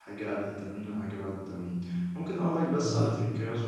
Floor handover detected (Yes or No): No